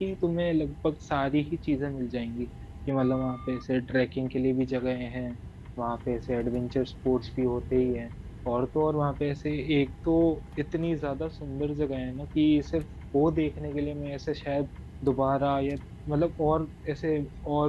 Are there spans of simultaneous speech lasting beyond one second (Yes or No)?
No